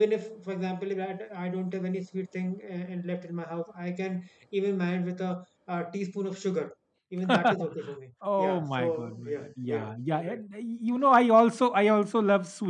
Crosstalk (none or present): present